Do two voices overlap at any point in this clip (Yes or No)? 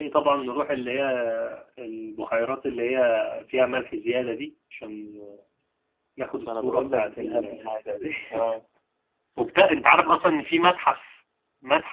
Yes